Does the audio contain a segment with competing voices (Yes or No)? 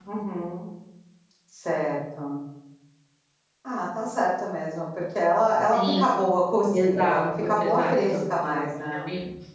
Yes